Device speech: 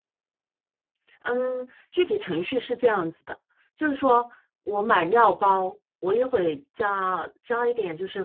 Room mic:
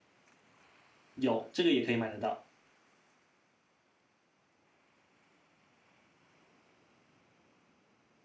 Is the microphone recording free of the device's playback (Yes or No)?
Yes